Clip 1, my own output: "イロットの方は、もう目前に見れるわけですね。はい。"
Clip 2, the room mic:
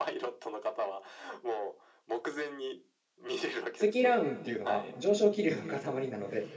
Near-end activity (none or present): present